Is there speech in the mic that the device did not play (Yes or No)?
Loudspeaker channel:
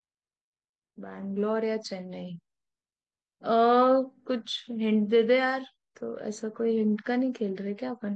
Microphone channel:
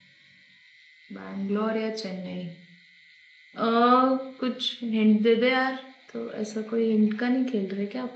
No